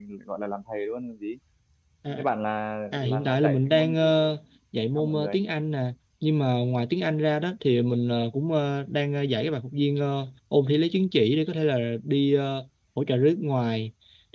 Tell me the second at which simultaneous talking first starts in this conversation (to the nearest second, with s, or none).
3 s